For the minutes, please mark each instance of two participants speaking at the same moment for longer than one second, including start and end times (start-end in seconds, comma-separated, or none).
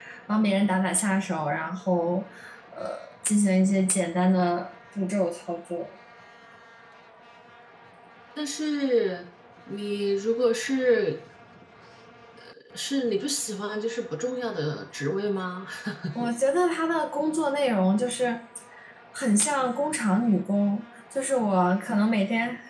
none